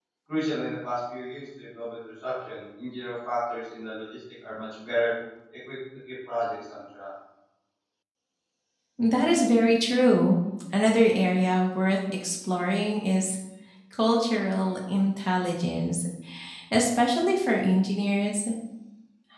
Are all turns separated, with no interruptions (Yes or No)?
Yes